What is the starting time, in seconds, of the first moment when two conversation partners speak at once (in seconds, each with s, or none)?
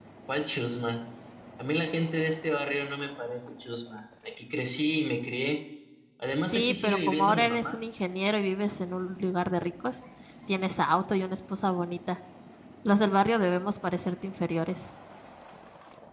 6.5 s